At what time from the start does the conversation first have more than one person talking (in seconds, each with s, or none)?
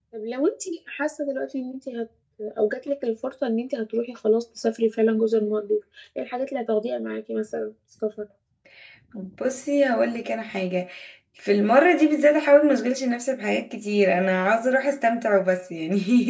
none